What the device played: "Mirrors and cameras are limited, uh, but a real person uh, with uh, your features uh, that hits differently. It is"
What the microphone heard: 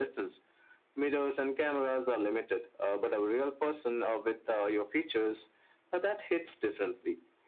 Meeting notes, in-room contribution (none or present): none